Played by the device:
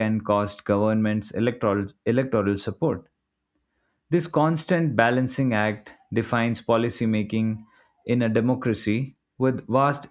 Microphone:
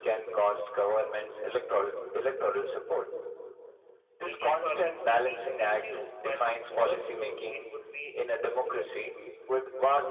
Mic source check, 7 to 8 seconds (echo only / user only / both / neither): both